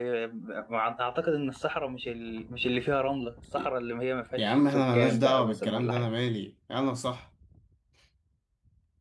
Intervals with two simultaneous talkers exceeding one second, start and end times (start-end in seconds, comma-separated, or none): 4.4-6.1